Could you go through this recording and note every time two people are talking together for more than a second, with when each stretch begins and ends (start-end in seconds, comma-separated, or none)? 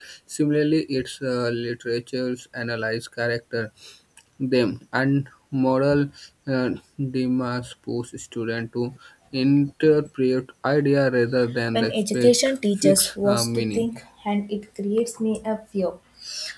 11.7-13.9